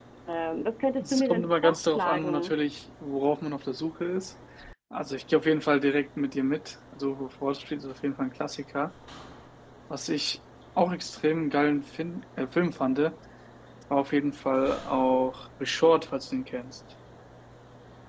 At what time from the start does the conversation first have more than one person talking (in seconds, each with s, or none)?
1.0 s